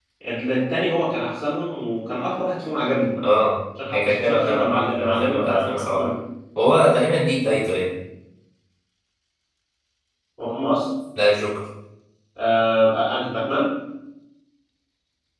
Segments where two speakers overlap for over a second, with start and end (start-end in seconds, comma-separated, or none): 3.9-6.1